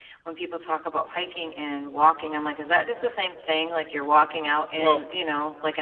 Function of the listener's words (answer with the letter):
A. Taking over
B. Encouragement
B